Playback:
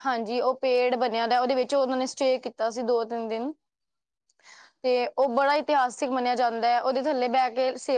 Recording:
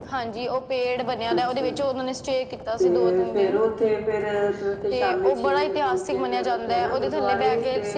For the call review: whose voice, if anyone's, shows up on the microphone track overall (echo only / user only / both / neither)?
both